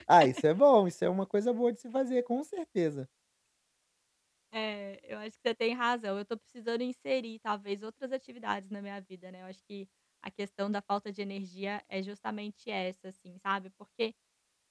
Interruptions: none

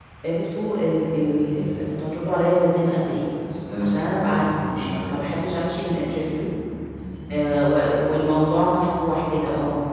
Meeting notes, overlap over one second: present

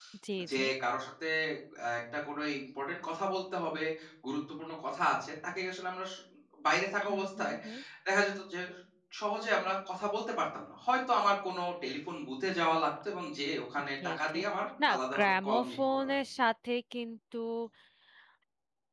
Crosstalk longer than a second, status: present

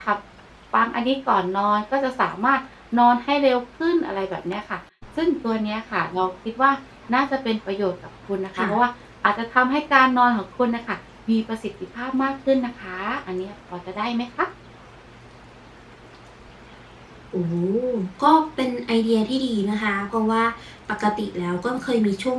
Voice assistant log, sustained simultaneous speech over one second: none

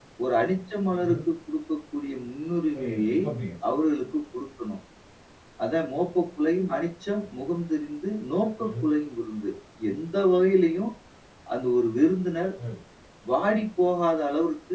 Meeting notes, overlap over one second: none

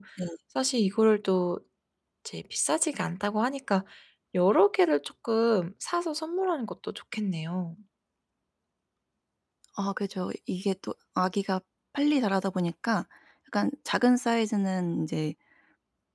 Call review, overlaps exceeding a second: none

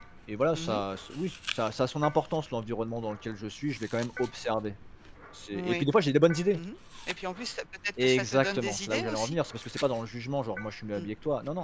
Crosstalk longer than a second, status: present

